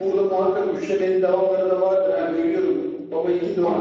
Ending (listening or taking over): listening